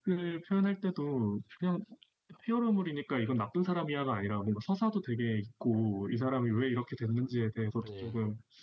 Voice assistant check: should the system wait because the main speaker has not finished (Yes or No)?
Yes